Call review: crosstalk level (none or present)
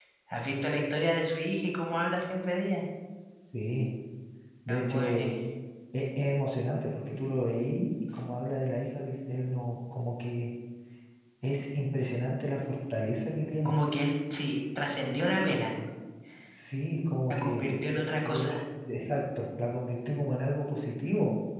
present